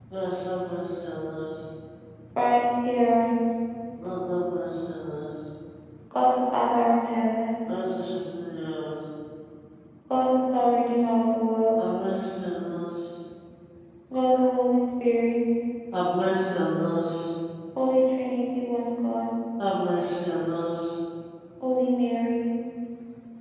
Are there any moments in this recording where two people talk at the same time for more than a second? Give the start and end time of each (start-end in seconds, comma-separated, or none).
none